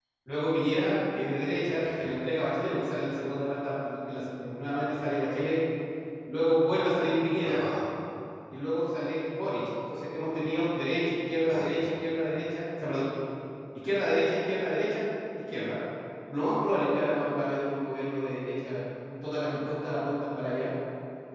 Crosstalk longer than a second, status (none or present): none